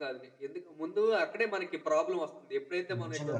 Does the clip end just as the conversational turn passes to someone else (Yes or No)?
No